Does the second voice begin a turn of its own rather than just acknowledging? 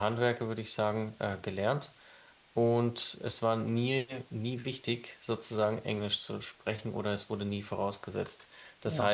No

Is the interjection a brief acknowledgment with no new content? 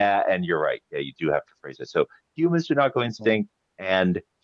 Yes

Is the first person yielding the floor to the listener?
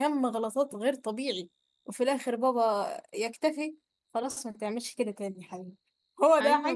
Yes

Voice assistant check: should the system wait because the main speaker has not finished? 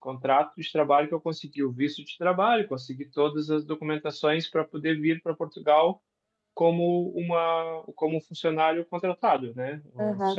No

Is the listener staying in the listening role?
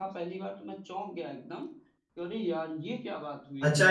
No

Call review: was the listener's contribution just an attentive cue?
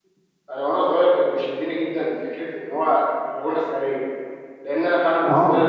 Yes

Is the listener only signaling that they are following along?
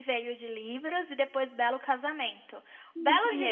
Yes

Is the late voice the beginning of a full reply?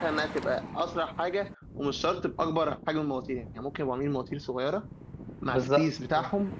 No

